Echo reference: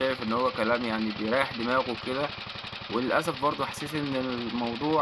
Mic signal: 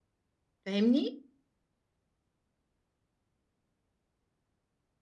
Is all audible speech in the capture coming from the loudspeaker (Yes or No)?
No